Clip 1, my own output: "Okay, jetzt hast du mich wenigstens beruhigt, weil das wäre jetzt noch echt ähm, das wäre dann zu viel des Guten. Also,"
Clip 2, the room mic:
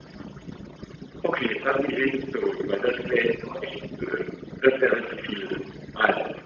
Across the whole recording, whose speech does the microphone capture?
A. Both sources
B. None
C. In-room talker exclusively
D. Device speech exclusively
D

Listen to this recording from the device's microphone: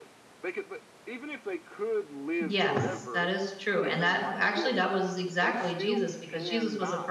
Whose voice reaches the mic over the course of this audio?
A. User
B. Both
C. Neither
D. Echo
B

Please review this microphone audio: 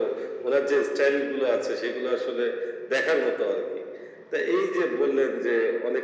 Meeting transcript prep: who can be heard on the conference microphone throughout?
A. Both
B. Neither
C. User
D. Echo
D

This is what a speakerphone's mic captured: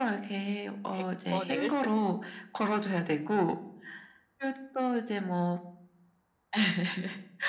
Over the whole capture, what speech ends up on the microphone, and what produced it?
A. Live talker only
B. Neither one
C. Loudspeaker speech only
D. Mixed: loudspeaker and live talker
D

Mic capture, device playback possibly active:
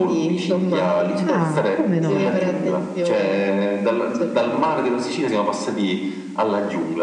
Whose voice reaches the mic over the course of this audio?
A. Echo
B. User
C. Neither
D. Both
D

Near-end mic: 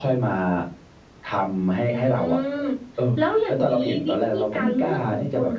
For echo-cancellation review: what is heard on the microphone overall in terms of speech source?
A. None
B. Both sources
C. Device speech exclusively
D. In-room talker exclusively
C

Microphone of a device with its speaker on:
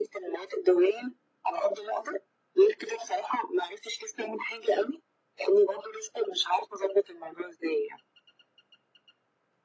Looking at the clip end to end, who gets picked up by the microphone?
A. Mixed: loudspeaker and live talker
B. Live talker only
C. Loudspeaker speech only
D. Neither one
C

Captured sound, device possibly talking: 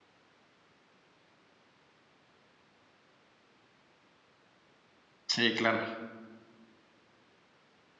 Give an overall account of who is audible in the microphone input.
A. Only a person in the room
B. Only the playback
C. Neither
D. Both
A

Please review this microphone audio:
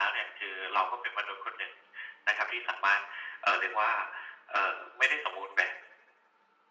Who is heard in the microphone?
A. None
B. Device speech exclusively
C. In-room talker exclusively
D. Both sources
B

